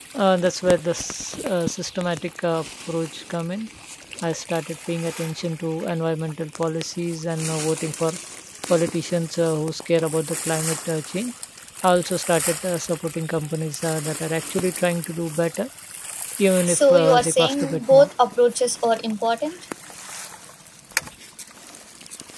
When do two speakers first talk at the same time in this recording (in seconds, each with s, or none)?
16.7 s